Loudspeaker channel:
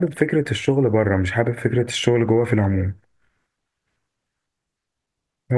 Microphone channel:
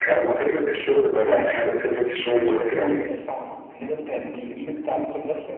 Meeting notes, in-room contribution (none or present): present